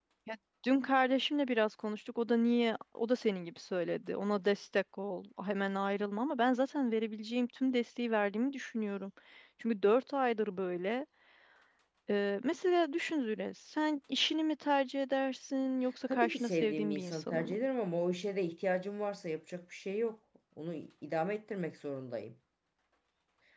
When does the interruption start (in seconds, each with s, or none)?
16.1 s